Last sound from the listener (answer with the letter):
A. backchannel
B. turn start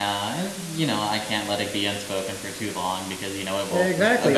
B